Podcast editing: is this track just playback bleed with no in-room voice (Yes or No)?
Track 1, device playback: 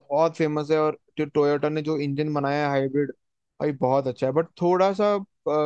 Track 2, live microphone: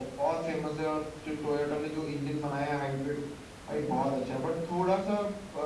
Yes